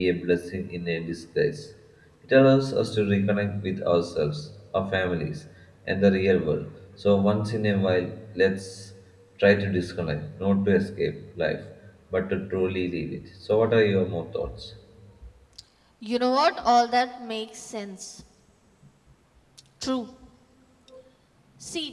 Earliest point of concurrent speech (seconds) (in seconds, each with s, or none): none